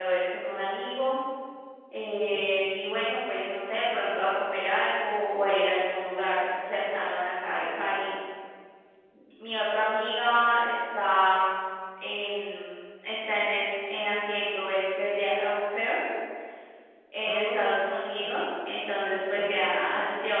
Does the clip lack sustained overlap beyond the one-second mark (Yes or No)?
No